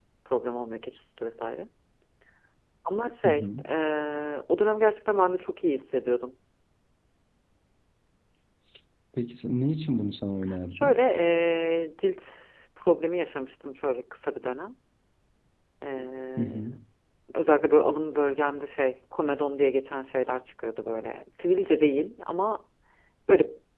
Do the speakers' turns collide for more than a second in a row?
No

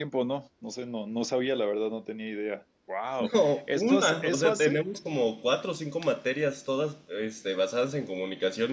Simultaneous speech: Yes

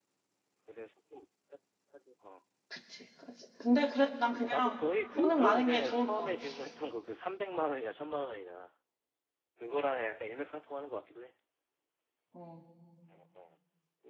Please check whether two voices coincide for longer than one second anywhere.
Yes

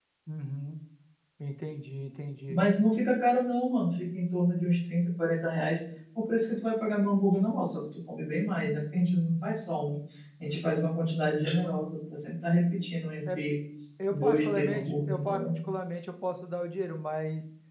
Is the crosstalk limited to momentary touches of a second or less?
No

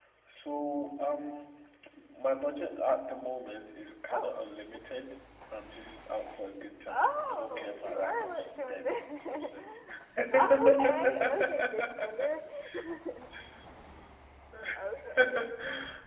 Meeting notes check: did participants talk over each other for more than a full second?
Yes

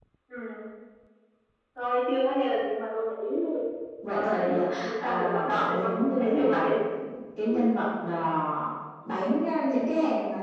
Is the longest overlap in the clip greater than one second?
Yes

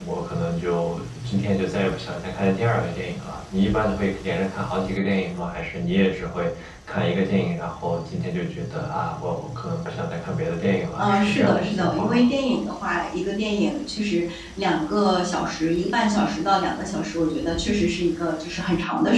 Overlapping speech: Yes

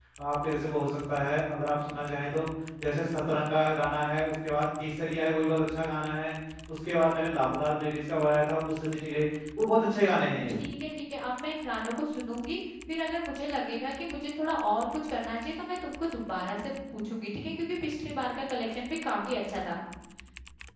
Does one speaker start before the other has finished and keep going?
No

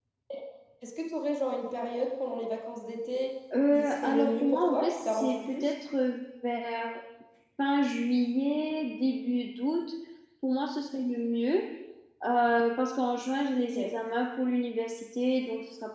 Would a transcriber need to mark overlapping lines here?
Yes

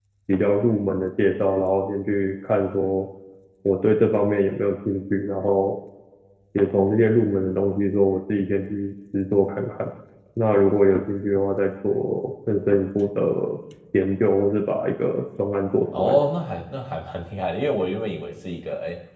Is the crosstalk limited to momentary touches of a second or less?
Yes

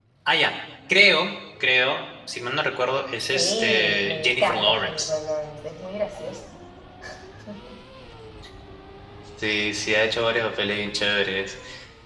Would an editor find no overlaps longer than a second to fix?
No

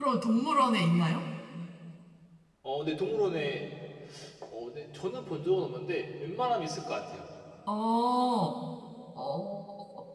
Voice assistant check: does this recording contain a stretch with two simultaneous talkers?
No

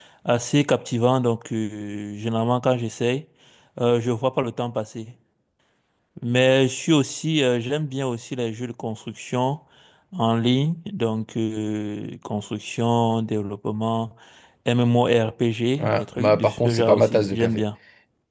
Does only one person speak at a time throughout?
No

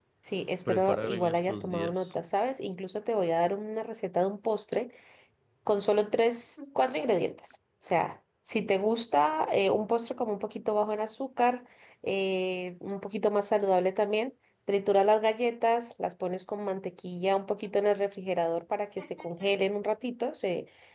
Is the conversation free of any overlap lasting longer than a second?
No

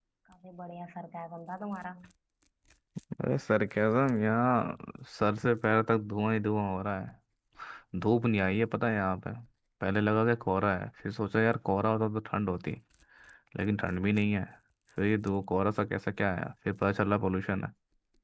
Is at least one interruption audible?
No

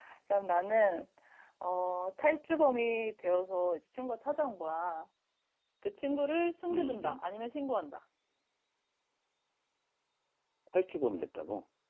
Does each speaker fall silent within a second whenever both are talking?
Yes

